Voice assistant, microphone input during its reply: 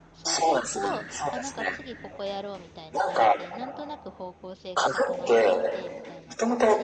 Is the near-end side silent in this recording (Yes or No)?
No